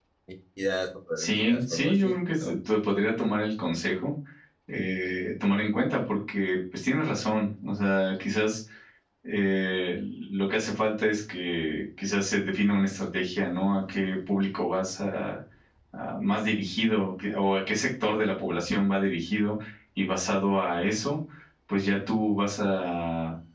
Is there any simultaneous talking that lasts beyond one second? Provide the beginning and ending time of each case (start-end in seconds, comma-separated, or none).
1.2-2.5